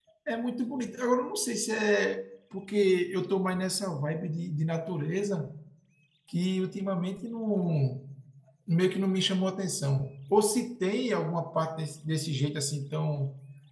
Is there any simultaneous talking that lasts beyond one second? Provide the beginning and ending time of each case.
none

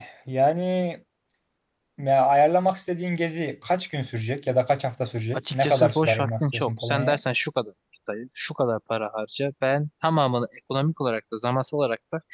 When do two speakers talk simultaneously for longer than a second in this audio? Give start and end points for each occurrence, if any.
5.3-7.2

